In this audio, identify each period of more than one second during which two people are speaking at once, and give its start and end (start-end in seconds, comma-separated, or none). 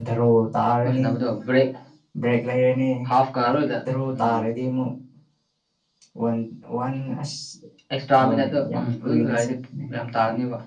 8.2-9.5